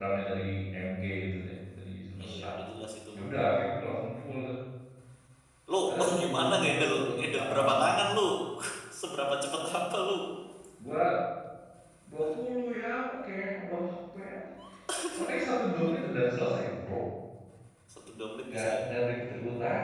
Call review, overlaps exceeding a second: present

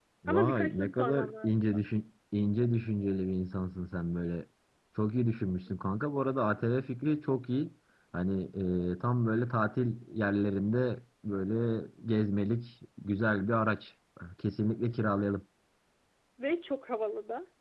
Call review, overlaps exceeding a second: present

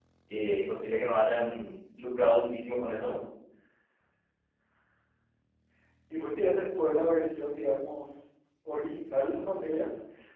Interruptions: none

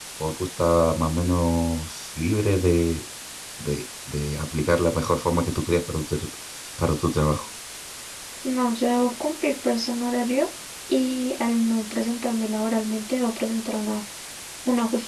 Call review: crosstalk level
none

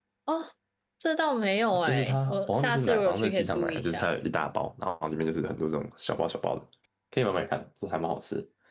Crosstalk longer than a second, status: present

